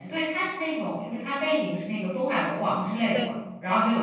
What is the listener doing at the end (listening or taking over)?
listening